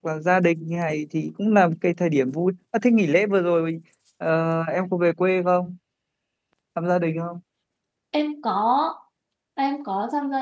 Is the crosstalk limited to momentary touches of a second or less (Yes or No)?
Yes